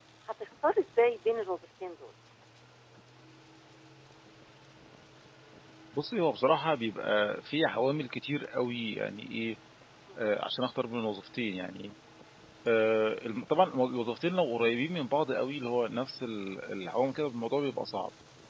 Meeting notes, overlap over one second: none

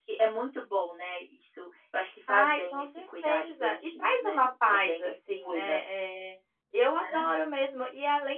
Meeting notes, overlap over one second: present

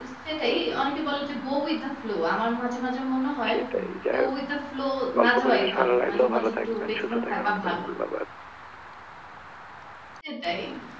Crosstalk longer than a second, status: present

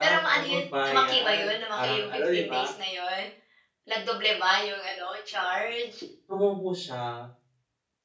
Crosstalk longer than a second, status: present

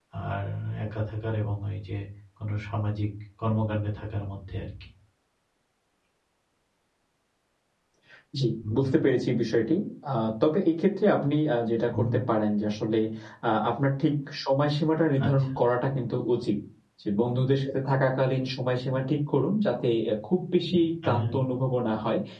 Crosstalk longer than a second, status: none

